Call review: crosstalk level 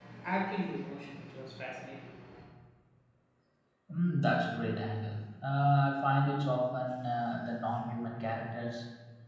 none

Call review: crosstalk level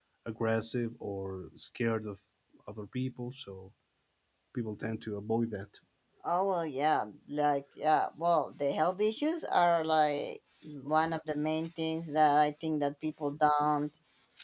none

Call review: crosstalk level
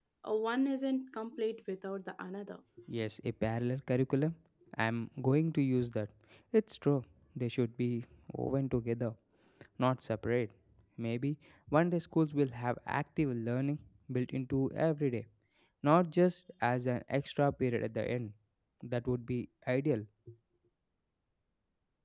none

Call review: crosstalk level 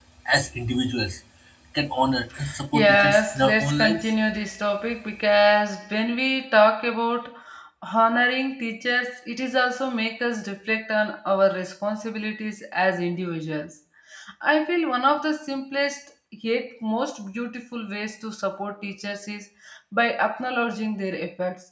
present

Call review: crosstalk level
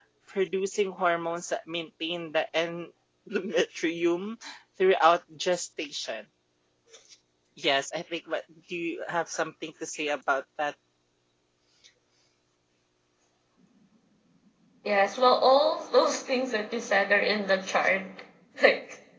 none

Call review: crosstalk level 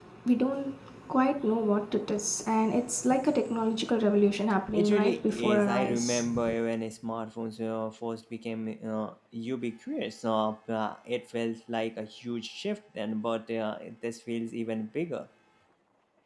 present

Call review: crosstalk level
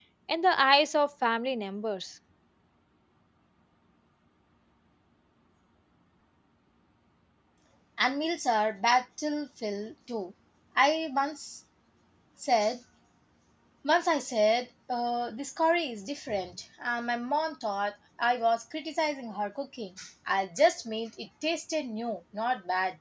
none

